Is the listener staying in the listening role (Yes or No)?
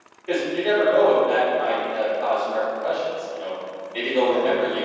Yes